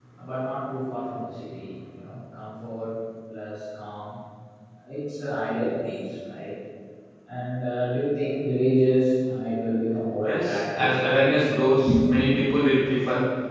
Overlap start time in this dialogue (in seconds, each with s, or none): 10.2 s